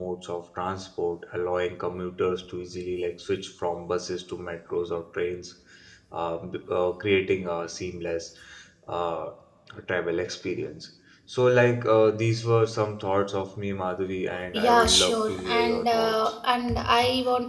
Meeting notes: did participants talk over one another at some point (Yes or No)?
Yes